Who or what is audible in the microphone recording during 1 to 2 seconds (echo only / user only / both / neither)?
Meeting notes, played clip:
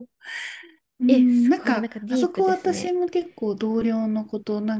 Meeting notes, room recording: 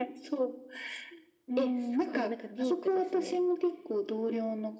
echo only